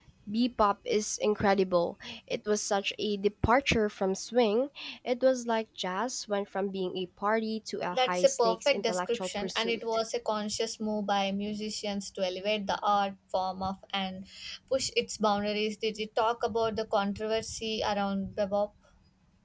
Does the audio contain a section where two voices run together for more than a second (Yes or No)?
Yes